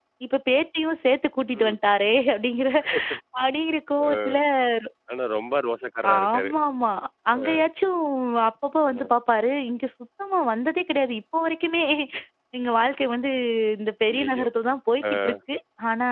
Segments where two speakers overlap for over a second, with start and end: none

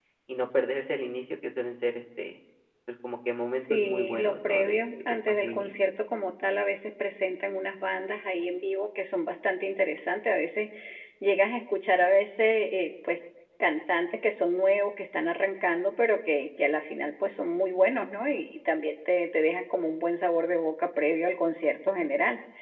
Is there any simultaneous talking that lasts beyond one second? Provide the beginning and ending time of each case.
3.7-5.7

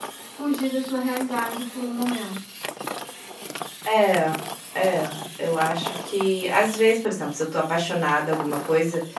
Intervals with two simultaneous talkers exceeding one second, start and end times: none

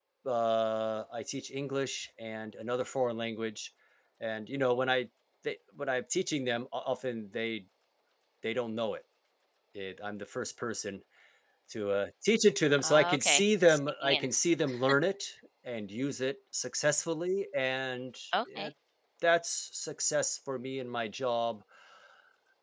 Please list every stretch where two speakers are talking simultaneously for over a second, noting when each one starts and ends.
12.8-14.3

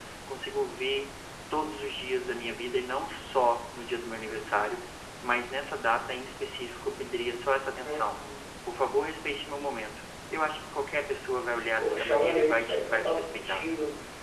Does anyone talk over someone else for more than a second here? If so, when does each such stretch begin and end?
11.8-13.7

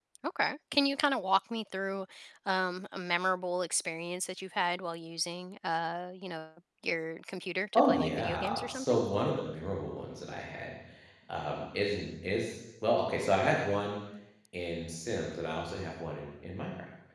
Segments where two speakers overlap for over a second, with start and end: 7.7-9.0

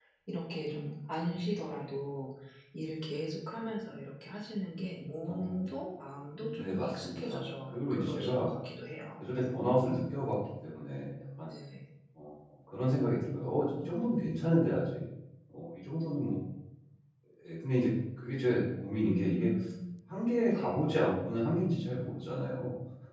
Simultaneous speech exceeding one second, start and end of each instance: 6.5-8.5

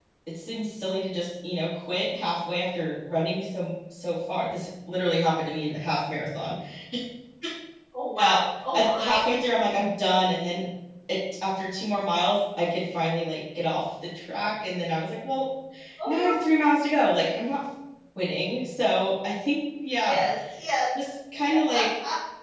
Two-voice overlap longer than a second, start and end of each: none

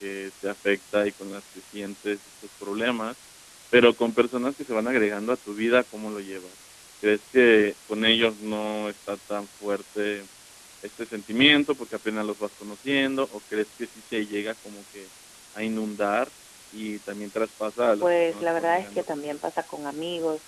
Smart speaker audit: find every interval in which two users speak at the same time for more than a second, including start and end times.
18.0-19.4

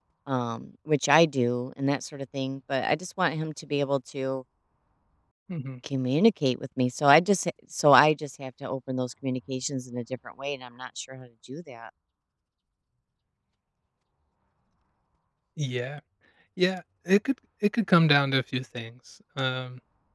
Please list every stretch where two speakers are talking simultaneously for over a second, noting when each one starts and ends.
none

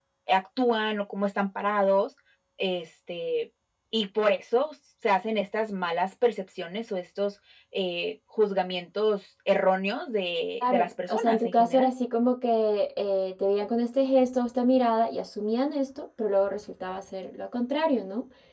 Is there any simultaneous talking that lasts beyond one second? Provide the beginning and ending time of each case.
10.6-11.9

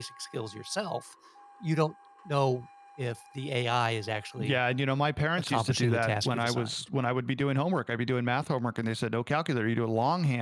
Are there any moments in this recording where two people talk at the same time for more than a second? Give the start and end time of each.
5.4-6.7

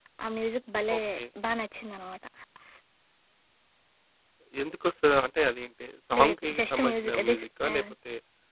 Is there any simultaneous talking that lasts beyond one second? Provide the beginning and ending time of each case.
6.2-7.8

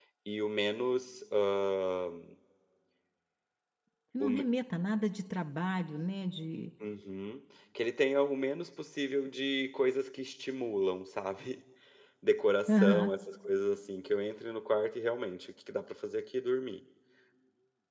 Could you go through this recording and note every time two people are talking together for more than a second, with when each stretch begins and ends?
none

